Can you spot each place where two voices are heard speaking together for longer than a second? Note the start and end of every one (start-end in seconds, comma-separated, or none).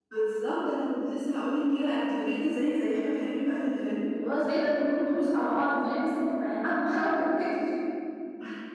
none